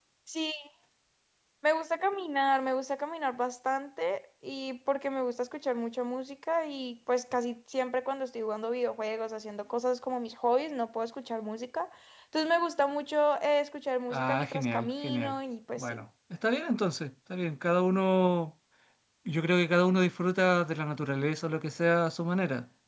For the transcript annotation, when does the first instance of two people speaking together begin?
14.1 s

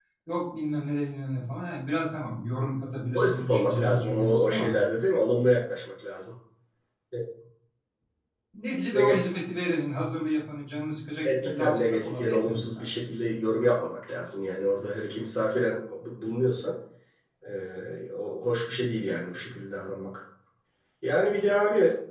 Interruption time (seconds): 3.1 s

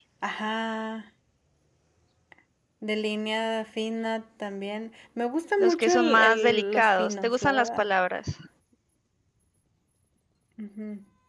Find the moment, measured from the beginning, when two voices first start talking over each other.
5.6 s

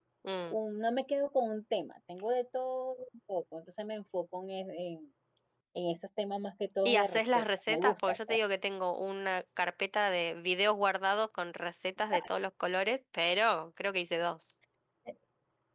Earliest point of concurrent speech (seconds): 6.8 s

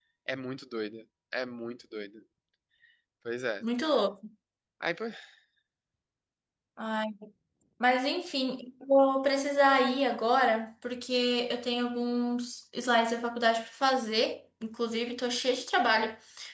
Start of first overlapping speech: none

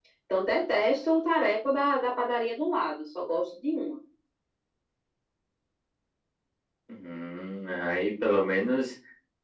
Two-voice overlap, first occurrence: none

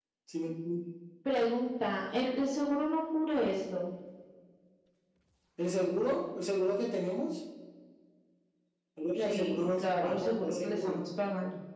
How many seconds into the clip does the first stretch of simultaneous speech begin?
9.2 s

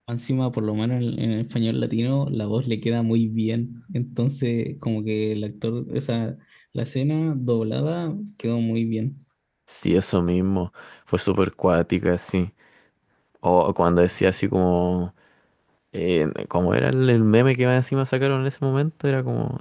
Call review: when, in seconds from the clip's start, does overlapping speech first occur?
none

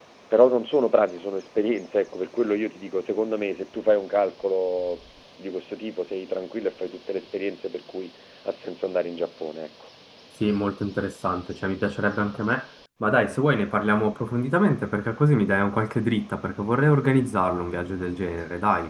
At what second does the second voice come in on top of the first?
none

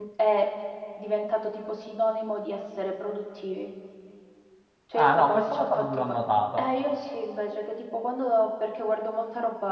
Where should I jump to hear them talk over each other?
5.0 s

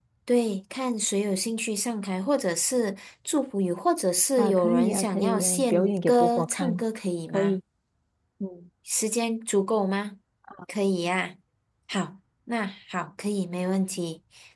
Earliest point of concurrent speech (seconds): 4.4 s

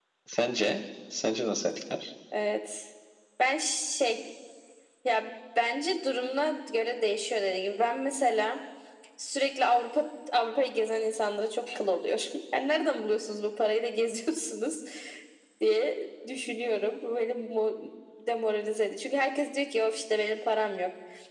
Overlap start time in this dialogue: none

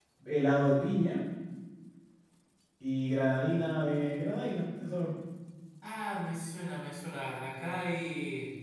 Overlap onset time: none

